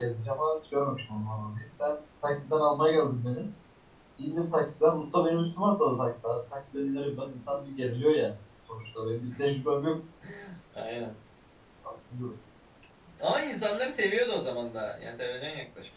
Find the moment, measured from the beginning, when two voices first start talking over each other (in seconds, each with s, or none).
none